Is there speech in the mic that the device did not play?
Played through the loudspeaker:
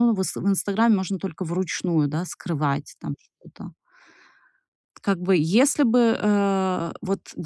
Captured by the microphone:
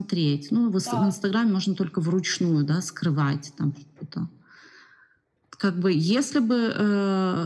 Yes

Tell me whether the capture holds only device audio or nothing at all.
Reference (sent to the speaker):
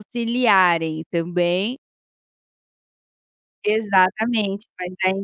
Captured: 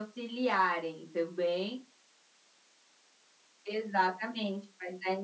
Yes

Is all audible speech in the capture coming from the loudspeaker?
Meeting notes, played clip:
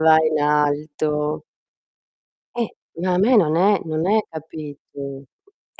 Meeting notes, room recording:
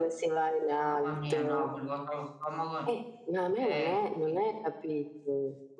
No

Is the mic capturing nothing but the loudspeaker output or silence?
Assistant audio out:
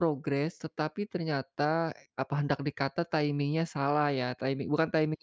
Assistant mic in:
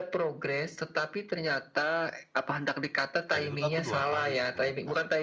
No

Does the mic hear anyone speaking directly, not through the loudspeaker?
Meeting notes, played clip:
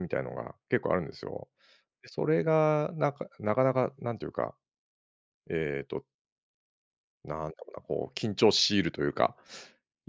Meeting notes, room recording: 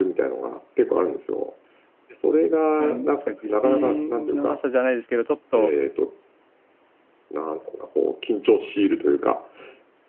Yes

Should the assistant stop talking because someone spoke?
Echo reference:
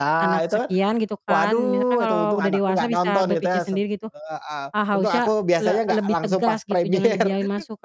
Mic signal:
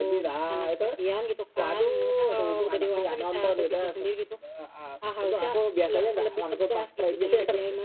No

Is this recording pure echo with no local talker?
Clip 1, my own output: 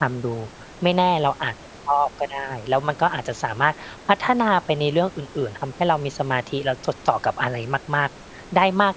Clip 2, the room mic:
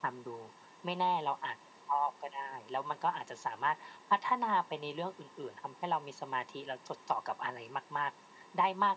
Yes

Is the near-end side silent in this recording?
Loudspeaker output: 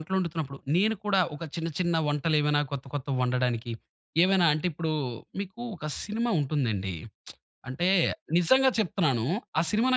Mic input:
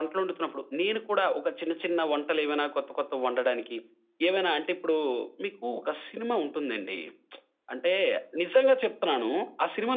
Yes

